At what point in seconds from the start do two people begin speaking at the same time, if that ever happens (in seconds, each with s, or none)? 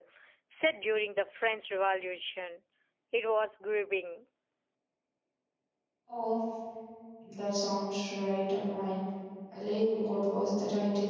none